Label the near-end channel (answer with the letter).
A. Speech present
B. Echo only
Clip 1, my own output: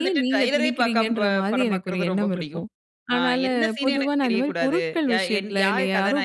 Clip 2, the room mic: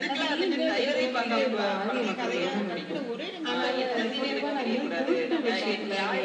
A